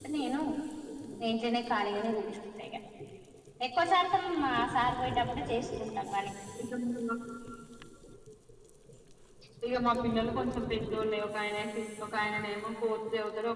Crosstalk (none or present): none